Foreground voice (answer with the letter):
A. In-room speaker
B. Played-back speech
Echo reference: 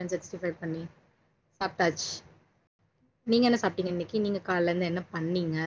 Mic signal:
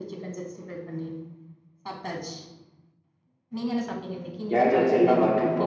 A